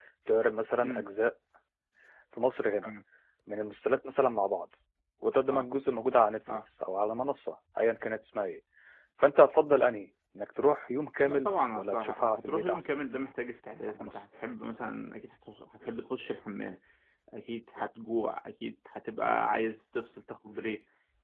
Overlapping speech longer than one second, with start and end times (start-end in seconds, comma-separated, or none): 11.2-12.9